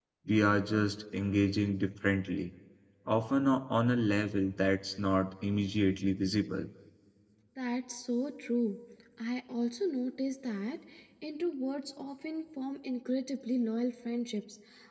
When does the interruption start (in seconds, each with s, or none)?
none